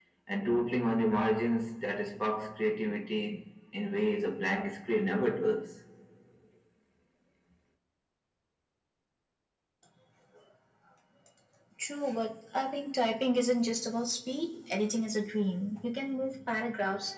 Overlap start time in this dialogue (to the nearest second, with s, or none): none